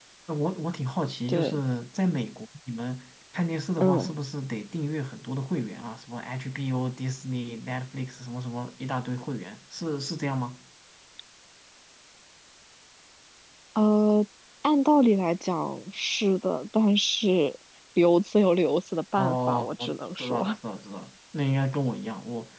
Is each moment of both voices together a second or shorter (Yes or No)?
No